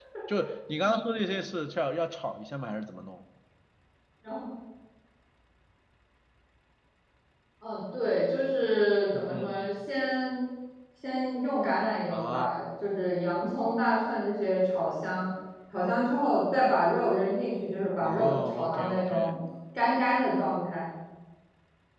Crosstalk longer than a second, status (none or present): present